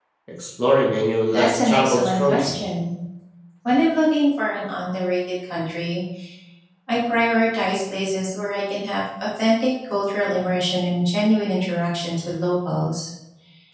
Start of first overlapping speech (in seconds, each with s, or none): 1.3 s